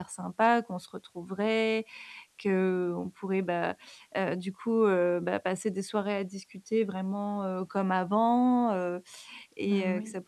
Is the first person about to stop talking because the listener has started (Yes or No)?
No